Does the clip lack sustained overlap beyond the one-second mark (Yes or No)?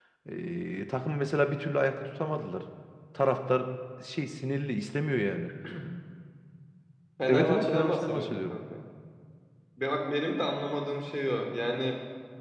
No